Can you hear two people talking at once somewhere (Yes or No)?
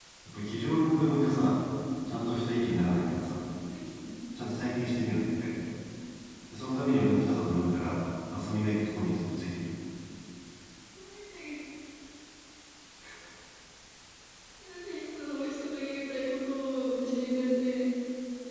No